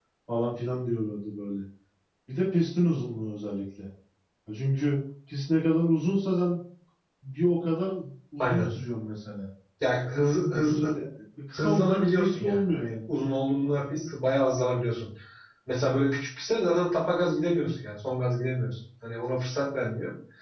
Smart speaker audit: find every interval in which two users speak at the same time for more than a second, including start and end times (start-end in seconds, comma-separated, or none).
11.6-12.9